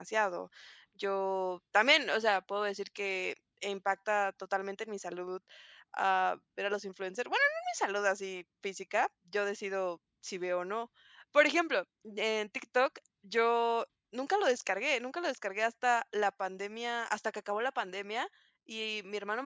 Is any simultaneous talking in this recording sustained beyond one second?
No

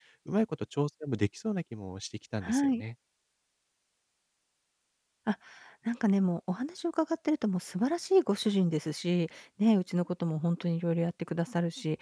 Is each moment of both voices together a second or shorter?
Yes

